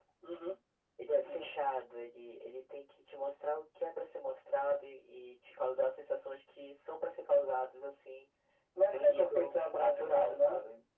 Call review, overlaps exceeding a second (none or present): present